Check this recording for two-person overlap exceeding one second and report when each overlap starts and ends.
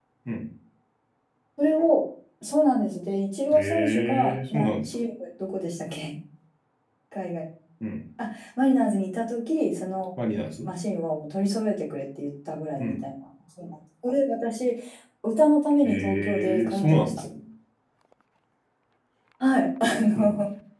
3.5-4.9, 15.8-17.2

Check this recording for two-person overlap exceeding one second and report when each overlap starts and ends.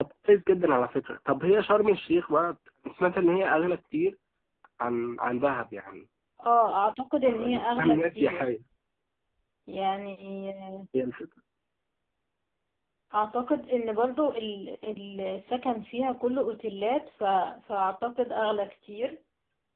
7.2-8.5

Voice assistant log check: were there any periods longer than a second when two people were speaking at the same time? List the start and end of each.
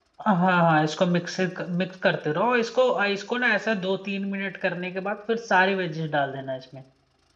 none

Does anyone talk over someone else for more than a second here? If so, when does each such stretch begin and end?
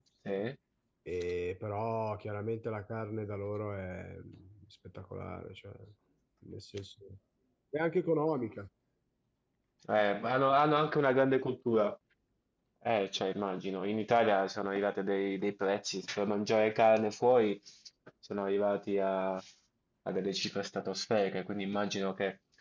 none

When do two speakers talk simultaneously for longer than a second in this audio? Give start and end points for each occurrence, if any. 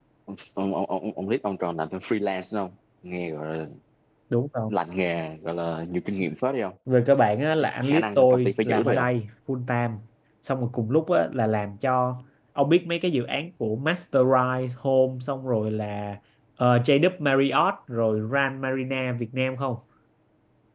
7.8-9.1

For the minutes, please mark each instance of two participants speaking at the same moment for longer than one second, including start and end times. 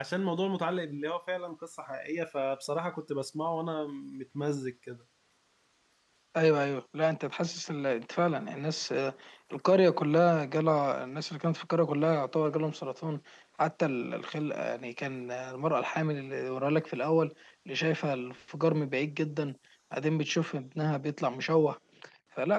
none

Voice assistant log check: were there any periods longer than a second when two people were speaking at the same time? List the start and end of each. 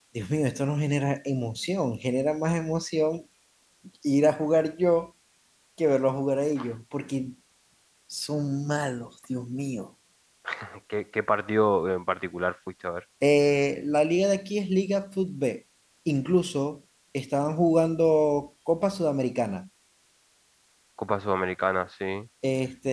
none

